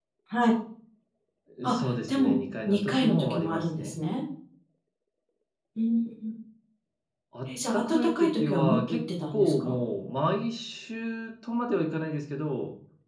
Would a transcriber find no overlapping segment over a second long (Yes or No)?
No